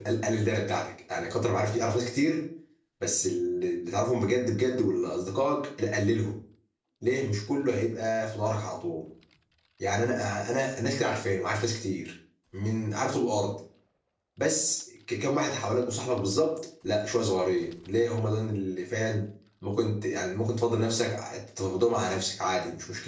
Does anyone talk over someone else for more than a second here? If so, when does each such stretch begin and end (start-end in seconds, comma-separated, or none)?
none